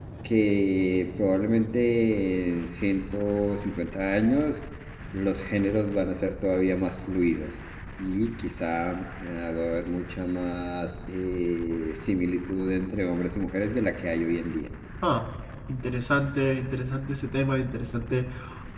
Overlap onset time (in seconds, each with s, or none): none